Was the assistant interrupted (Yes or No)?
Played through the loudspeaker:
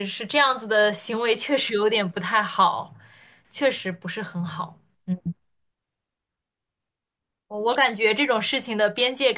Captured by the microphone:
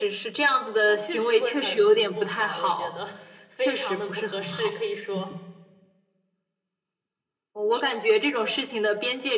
Yes